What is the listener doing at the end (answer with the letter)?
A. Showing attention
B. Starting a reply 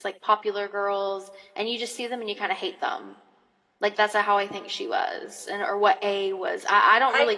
B